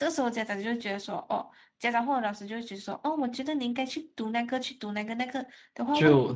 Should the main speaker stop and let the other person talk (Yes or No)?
No